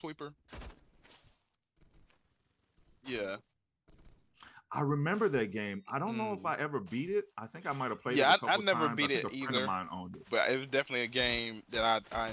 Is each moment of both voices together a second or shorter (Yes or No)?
No